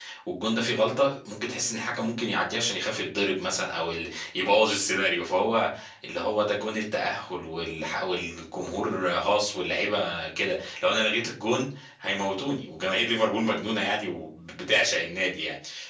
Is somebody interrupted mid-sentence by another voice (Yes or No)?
No